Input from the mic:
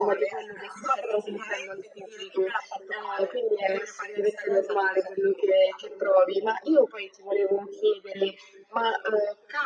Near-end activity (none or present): none